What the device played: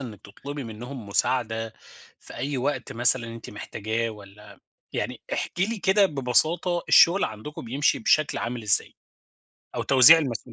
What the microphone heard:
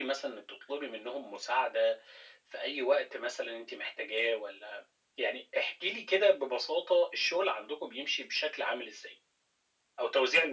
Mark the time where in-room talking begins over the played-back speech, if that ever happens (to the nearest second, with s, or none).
none